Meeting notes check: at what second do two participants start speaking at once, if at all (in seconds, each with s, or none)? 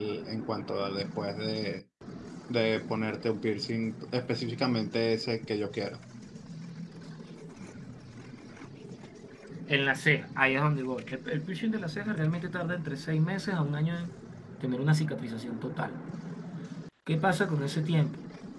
none